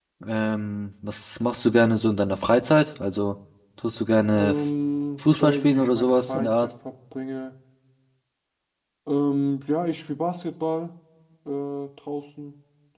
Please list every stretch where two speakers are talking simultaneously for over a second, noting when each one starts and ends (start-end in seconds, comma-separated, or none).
5.2-6.7